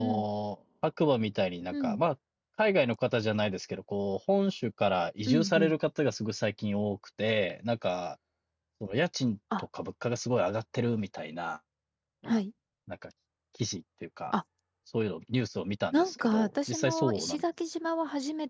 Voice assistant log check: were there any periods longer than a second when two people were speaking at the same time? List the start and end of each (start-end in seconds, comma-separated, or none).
15.9-17.4